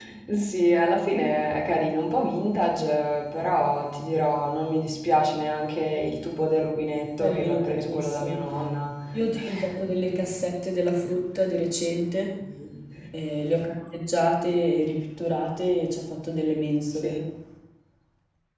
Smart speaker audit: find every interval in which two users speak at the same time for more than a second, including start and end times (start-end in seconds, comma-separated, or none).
7.2-8.4